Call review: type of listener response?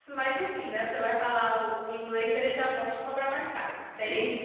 taking over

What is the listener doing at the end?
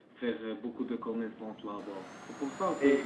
taking over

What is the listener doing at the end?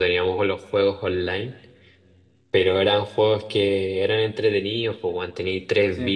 listening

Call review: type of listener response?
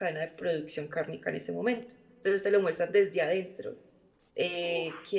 listening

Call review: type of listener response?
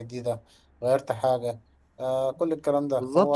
taking over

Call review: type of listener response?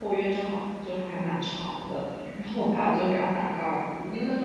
listening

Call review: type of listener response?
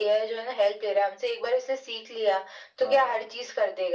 listening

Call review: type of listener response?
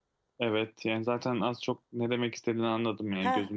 taking over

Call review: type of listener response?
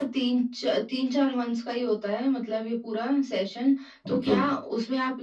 listening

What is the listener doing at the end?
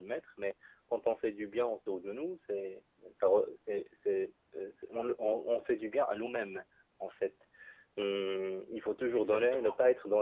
listening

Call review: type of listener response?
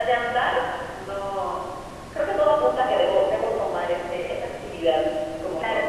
taking over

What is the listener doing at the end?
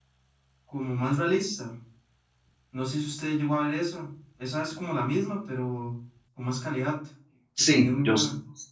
taking over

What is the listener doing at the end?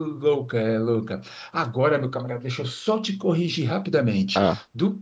listening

